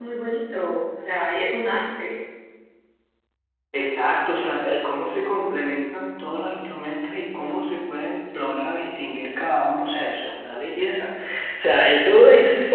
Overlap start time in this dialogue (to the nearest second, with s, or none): none